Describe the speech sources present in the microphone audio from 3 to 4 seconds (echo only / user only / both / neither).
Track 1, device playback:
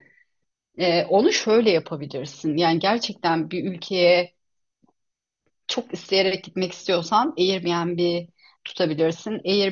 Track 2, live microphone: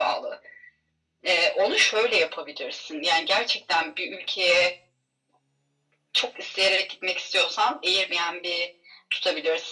echo only